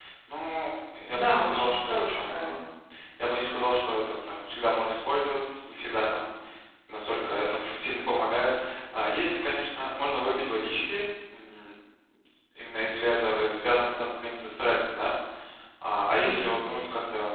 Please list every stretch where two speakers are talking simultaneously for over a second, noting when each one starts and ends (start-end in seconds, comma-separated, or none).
1.1-2.4